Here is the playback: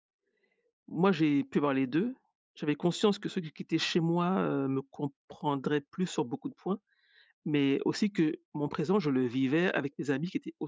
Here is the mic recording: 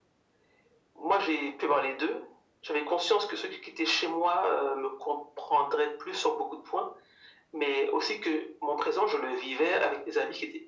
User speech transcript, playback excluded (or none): none